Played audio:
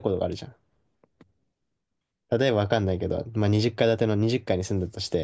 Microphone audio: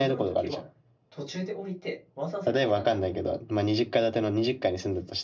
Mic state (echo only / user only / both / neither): both